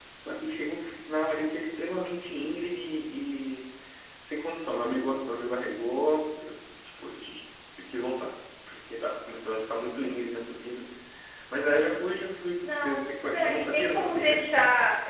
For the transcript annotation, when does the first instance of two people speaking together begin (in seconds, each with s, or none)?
12.6 s